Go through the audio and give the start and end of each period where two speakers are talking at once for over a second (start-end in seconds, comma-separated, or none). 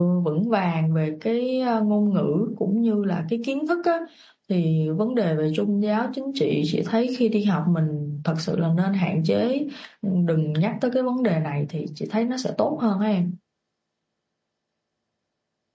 none